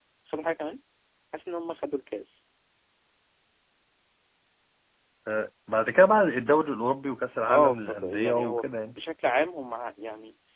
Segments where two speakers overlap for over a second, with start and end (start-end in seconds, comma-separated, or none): 7.5-9.0